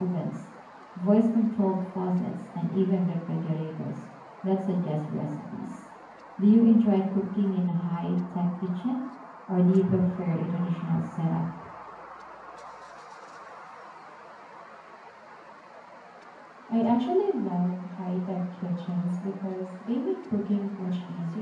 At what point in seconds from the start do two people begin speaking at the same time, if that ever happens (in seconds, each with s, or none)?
none